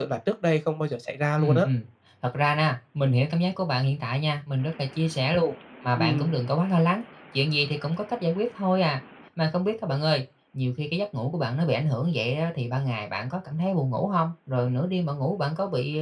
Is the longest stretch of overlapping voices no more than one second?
Yes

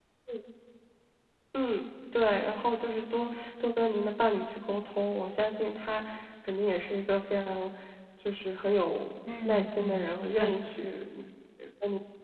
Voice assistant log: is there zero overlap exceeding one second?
No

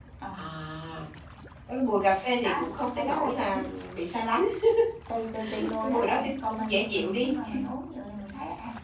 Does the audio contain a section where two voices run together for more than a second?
Yes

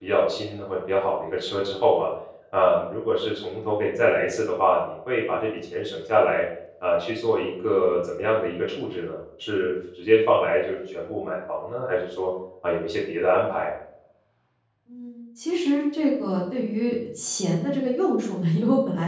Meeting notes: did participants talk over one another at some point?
No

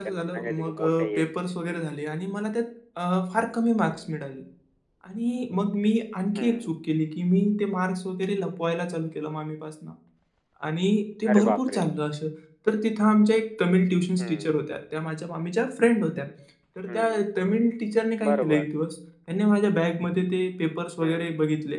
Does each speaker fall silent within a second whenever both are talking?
No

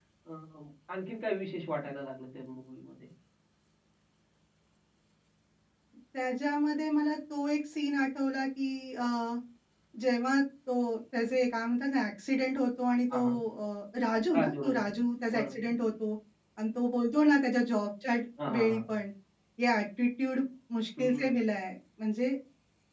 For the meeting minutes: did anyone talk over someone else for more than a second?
No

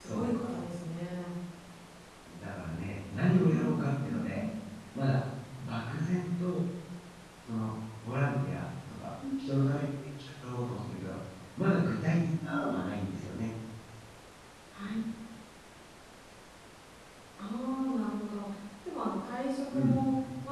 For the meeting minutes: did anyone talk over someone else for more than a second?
Yes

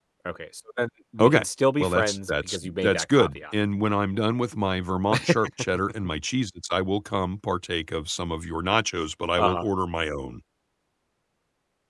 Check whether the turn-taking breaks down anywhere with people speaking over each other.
Yes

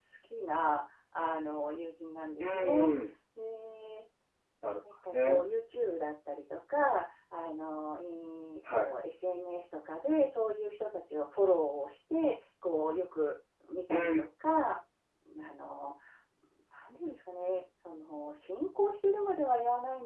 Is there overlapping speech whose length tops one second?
No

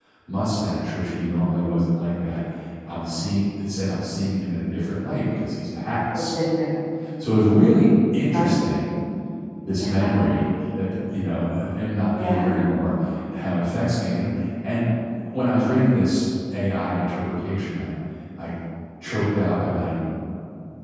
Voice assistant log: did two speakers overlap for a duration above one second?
No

